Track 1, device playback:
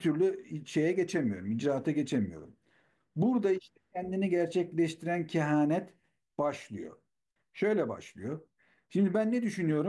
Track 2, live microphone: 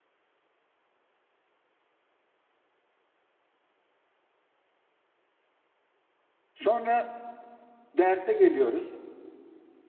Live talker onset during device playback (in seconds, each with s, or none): 6.5 s